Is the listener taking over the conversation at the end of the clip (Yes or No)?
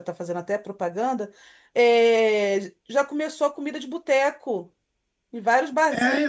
Yes